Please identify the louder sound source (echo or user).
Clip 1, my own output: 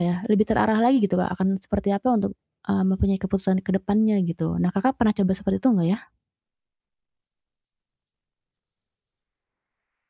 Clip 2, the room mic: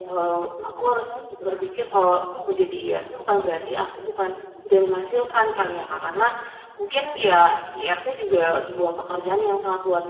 user